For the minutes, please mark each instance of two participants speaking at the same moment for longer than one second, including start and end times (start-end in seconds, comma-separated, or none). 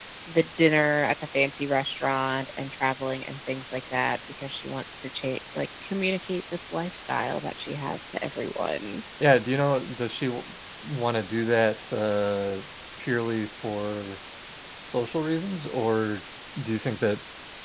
none